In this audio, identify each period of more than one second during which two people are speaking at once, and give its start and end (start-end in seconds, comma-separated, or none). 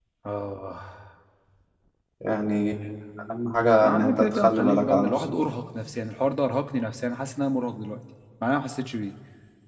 3.8-5.3